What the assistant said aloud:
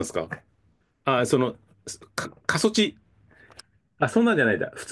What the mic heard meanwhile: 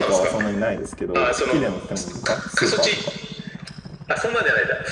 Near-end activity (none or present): present